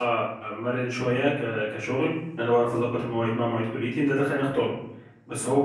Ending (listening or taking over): listening